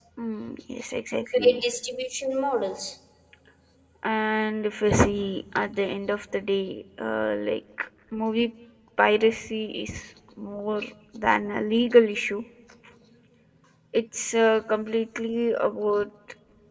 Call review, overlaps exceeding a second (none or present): none